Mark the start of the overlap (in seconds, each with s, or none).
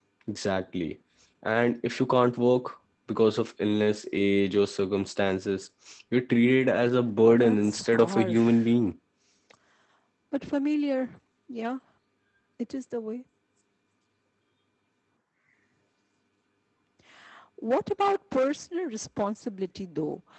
7.4 s